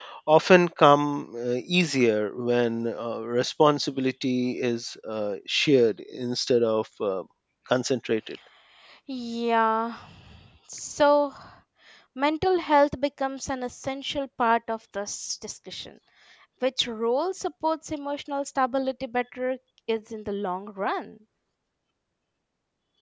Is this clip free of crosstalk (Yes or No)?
Yes